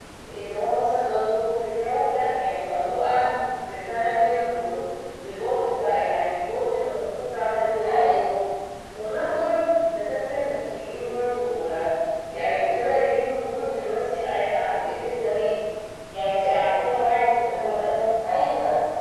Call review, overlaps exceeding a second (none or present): none